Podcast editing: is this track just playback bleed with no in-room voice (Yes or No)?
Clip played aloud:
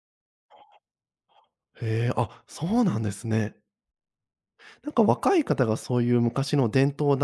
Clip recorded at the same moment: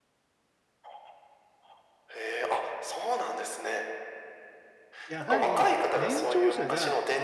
No